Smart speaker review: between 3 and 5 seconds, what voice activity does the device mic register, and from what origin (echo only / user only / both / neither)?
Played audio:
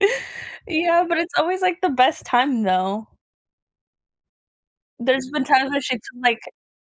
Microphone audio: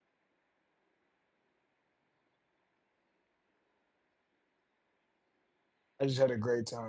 neither